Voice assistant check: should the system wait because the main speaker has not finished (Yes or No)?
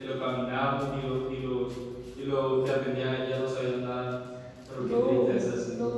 No